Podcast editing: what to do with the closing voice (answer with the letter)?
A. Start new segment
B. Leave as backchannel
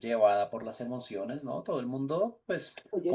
B